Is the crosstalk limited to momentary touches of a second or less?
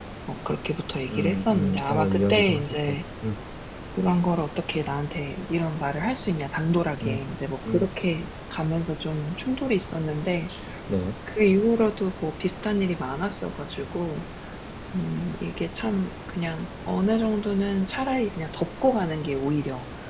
No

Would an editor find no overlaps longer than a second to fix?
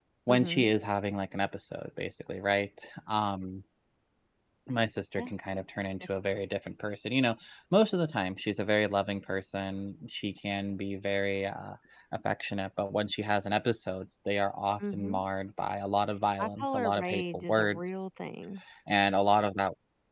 No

